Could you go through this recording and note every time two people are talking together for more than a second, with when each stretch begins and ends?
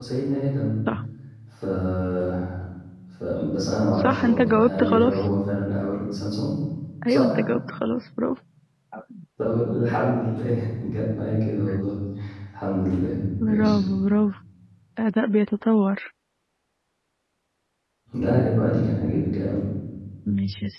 4.0-5.2

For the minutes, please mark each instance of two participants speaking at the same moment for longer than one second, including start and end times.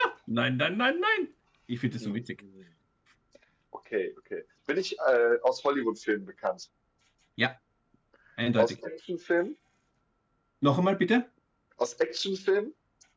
none

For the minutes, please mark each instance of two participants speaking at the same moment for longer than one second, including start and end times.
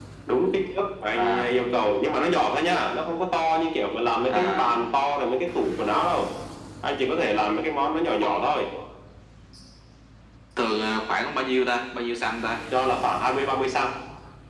none

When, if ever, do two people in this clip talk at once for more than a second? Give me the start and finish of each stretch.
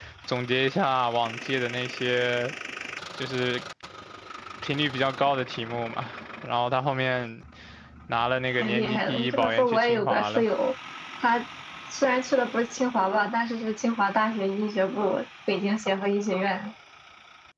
8.6-10.4

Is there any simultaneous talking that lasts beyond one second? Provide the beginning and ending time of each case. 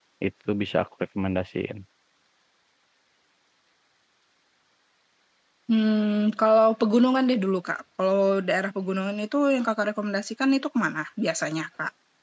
none

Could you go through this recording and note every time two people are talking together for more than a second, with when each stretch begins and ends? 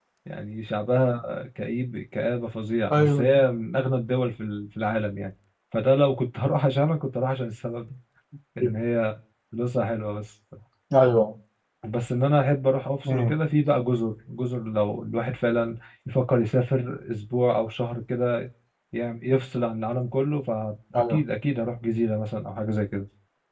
none

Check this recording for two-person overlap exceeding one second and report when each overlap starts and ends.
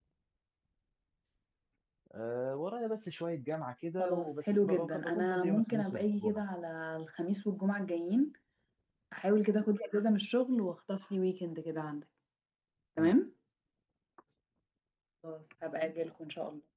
4.0-6.4

